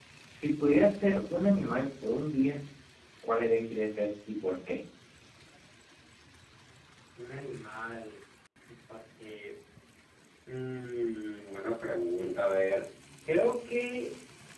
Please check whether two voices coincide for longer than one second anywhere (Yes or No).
No